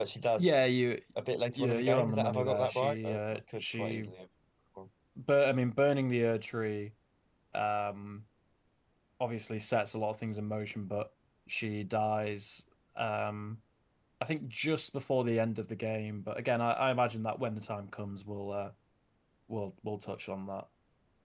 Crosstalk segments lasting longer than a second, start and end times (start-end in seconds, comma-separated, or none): 1.6-4.1